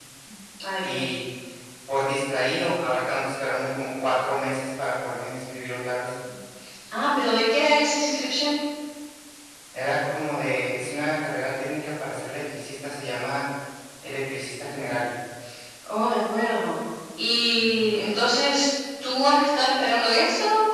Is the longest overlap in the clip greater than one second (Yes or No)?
No